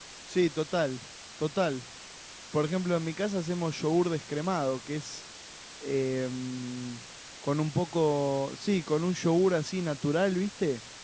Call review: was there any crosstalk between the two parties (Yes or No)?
No